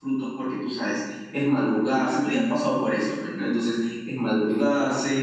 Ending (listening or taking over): listening